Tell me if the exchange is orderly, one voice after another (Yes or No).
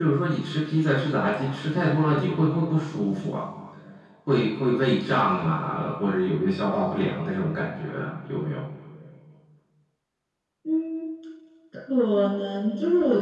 Yes